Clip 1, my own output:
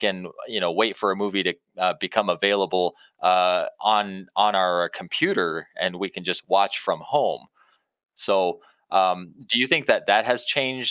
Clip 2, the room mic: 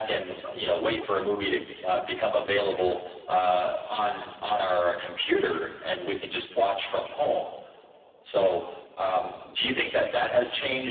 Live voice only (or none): none